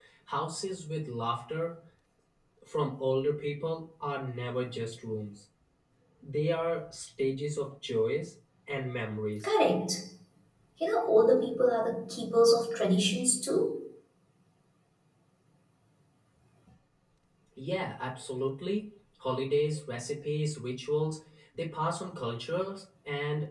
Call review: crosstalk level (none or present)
none